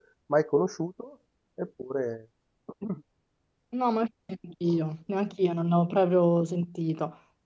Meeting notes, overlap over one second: none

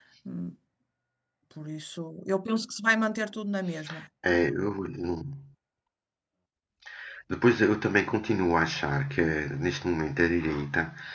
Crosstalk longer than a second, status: none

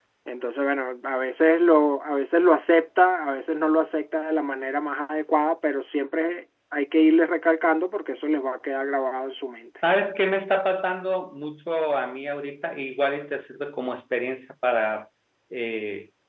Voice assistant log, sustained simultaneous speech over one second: none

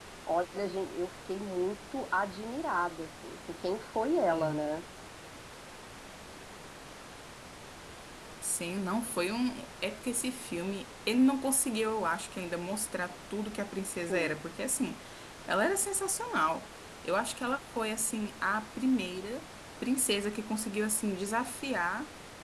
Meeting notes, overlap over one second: none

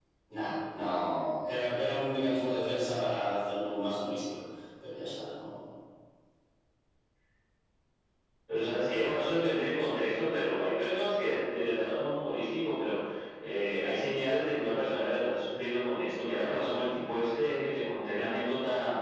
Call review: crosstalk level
none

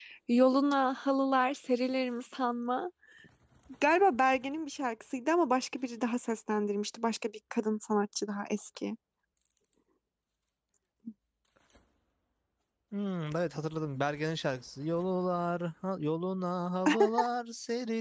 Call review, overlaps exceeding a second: none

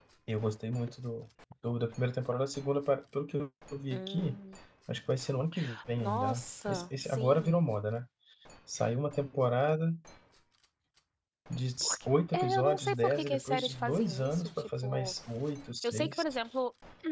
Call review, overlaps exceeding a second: present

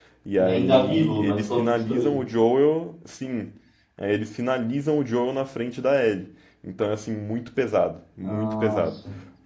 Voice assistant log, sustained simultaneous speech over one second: present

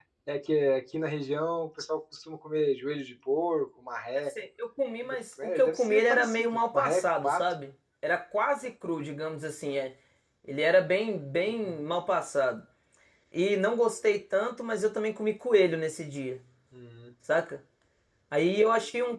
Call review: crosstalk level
present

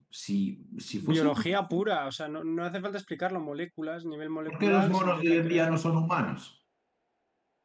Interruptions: present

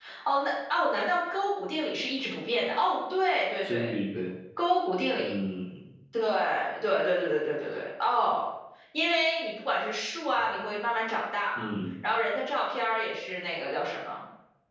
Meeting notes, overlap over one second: none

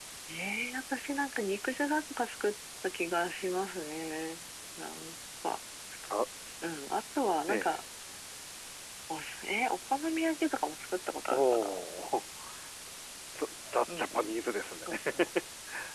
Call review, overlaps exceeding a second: none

